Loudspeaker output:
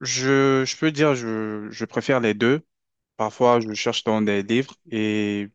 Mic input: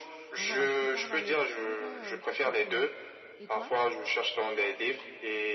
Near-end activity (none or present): present